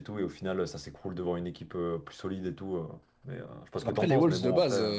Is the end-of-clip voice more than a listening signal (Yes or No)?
Yes